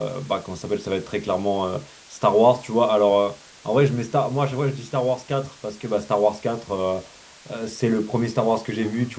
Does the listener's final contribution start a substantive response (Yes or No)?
No